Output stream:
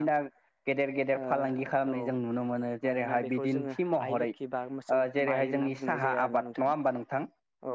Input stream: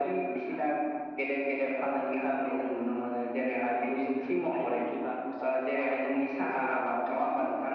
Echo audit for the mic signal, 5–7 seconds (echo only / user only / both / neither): echo only